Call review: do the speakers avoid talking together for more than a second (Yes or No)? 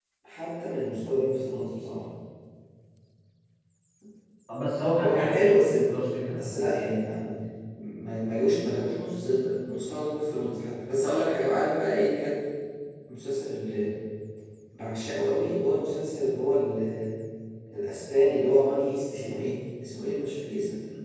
Yes